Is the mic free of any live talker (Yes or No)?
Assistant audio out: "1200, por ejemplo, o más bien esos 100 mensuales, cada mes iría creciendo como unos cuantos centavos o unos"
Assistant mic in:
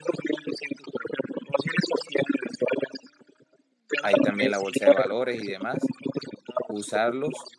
No